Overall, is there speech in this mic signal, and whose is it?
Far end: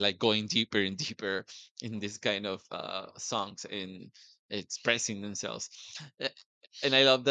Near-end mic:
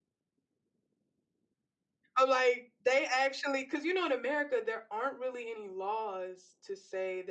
user only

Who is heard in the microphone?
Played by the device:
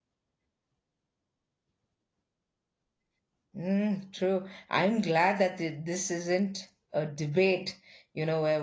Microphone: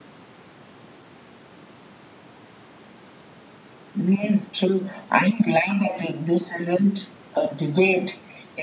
echo only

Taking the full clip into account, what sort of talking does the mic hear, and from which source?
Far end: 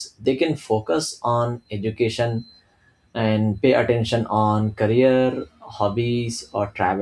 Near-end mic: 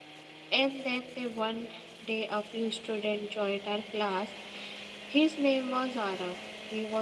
user only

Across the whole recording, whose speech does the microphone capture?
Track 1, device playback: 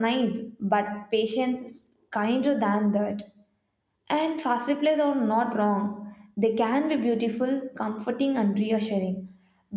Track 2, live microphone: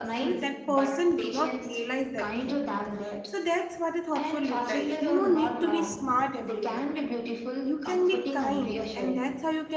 both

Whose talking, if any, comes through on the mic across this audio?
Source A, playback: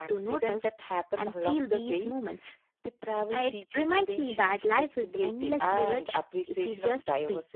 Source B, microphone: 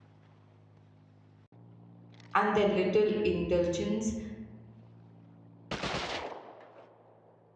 user only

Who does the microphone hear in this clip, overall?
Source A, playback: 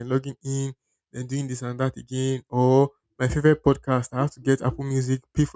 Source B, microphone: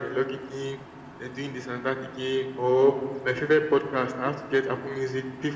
echo only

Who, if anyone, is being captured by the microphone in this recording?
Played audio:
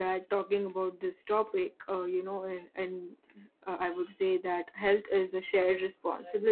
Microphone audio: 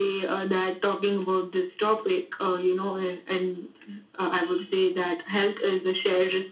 echo only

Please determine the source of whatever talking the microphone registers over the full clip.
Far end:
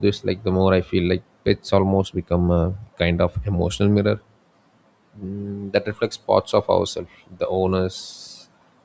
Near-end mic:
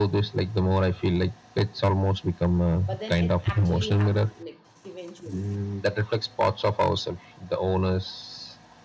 both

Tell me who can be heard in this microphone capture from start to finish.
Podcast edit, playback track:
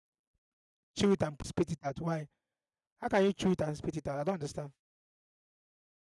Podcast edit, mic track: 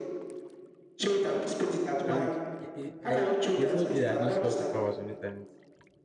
both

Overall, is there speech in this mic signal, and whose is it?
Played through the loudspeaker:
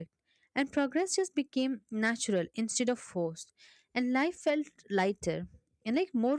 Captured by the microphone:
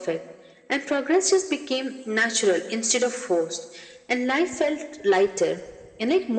echo only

